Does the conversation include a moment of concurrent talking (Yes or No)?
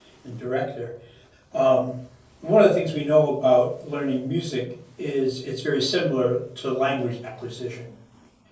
No